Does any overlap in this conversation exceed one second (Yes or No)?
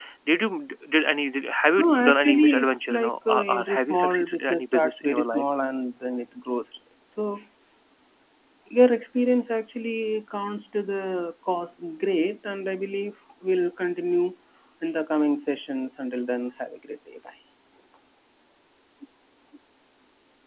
Yes